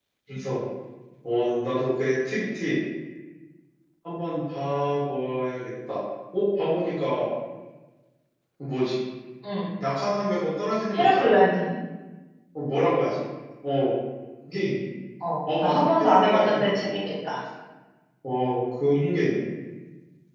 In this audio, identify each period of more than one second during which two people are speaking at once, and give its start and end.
15.6-17.0

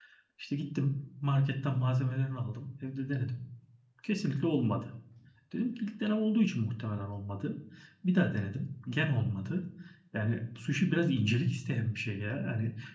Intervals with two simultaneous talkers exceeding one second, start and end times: none

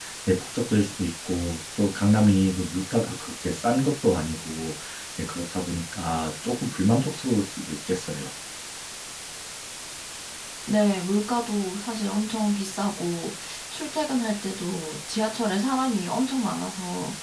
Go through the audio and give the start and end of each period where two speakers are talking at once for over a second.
none

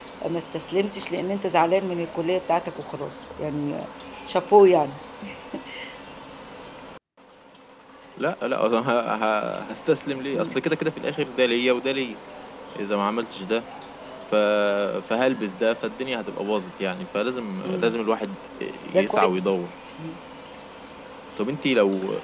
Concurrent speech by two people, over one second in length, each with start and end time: none

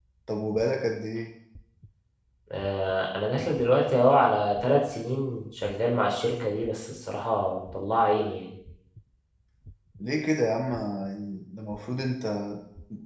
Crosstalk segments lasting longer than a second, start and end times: none

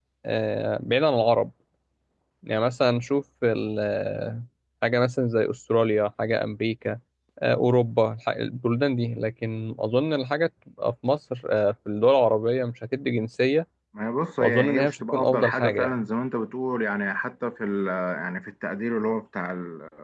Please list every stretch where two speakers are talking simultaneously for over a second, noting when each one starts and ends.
14.4-16.1

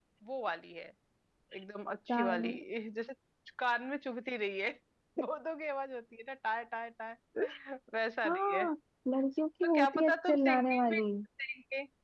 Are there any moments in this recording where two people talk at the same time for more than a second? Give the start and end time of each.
9.6-11.0

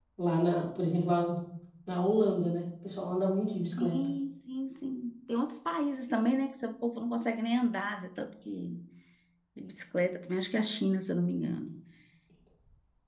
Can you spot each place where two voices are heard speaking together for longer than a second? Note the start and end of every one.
none

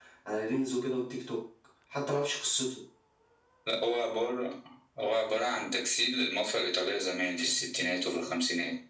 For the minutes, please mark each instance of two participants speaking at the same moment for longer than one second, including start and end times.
none

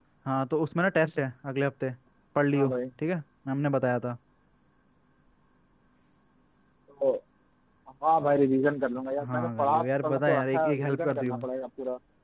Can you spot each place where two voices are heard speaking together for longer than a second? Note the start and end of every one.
9.2-11.4

